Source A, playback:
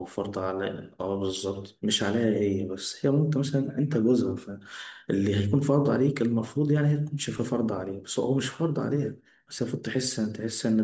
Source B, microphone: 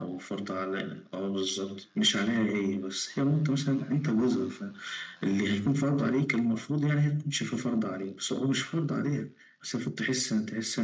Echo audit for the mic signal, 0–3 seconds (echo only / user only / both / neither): echo only